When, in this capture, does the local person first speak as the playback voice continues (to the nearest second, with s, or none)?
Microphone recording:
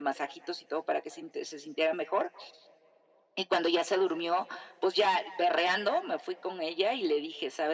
none